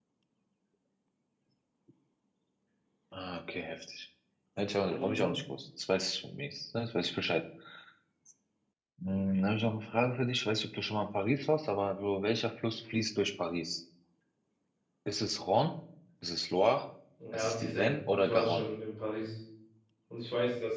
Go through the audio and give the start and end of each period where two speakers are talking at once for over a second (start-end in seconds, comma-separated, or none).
17.3-18.7